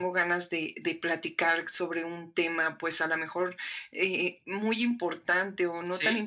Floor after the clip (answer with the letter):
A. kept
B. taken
A